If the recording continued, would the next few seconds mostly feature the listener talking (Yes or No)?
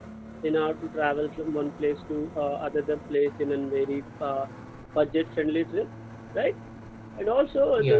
No